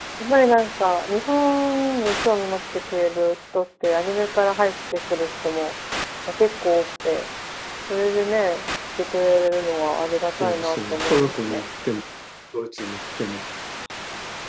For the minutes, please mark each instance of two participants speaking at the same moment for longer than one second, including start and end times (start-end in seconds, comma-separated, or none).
10.4-11.6